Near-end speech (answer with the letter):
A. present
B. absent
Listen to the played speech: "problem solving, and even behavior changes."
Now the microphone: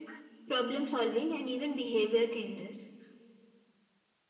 B